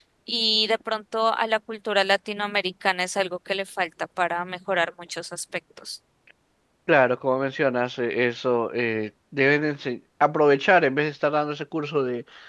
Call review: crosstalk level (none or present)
none